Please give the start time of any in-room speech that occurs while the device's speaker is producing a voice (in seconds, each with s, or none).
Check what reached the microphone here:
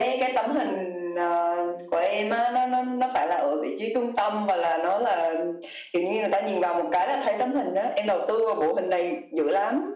none